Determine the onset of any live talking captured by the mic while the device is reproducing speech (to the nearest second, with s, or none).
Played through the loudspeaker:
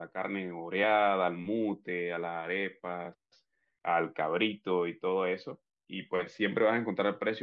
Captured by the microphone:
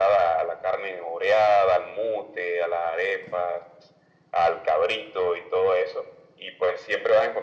none